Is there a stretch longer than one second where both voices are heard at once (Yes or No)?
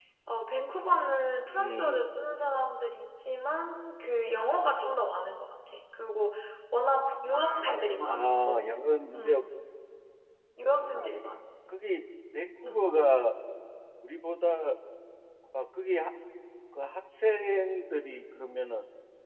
No